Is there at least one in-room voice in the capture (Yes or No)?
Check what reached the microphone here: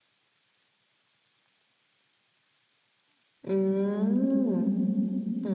Yes